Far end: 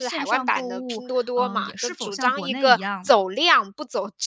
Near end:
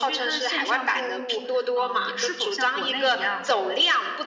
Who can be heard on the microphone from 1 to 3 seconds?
echo only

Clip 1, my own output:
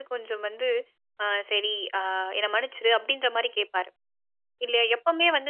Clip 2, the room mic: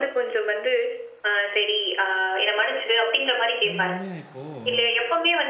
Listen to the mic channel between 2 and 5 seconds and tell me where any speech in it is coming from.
both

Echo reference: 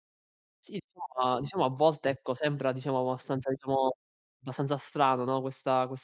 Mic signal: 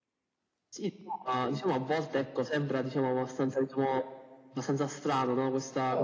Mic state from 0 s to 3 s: echo only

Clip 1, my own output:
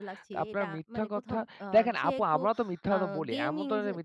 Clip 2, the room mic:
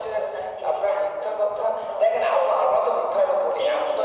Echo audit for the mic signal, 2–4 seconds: echo only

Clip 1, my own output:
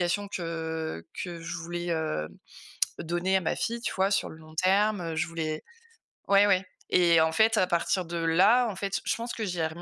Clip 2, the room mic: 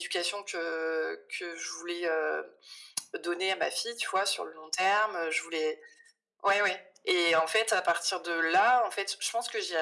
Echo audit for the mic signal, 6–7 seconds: echo only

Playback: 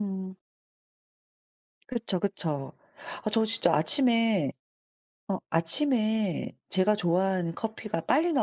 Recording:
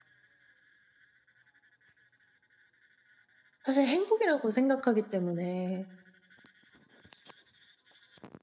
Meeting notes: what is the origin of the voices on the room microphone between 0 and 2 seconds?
neither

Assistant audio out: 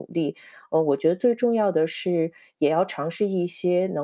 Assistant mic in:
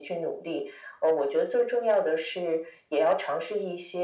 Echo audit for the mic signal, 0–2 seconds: echo only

